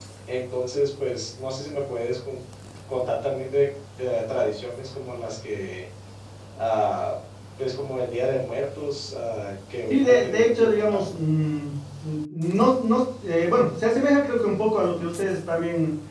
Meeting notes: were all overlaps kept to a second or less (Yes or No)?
No